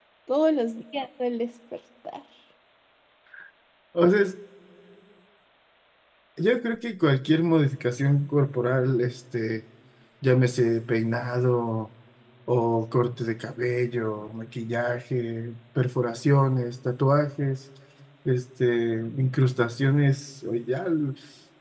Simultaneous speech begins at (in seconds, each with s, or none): none